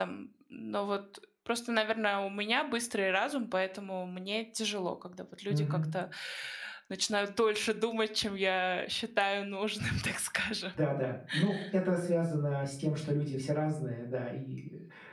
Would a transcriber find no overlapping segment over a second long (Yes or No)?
Yes